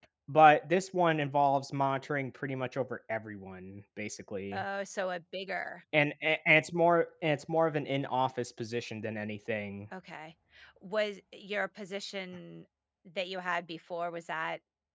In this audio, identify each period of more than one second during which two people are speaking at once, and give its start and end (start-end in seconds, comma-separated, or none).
none